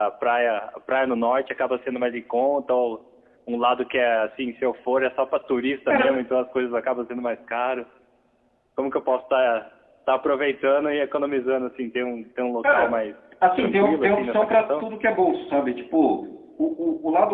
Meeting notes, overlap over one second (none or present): present